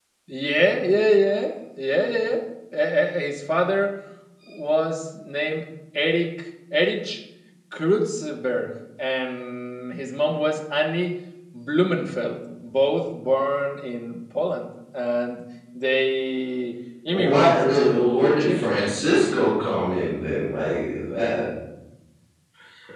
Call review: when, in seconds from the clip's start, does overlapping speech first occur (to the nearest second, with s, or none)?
17 s